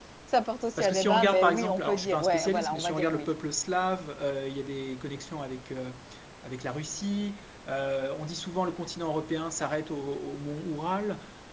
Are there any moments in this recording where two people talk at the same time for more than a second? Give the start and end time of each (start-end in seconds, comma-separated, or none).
0.8-3.3